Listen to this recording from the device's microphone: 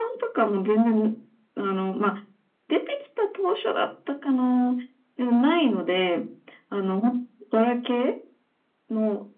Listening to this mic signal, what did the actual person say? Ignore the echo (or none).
none